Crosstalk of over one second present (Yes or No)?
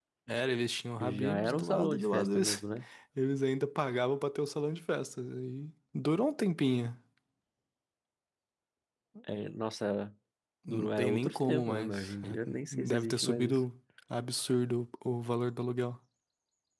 Yes